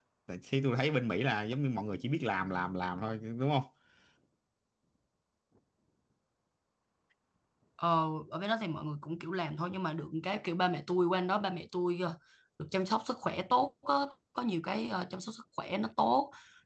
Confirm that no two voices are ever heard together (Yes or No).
Yes